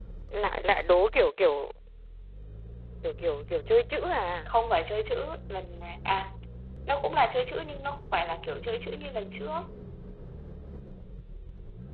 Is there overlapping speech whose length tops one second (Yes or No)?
No